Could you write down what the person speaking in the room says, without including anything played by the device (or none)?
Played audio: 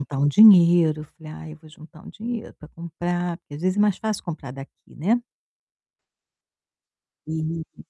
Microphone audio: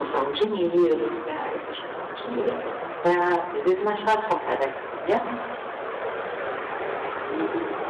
none